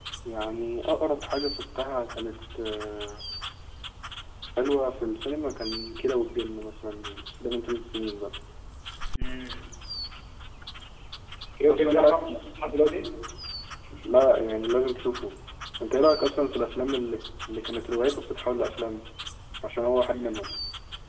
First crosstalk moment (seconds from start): 12 s

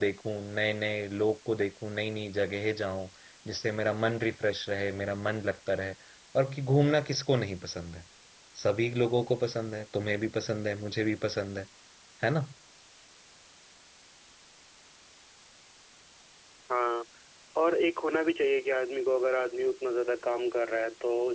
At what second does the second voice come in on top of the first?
none

